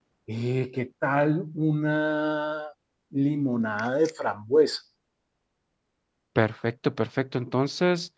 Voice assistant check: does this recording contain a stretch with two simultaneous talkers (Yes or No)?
No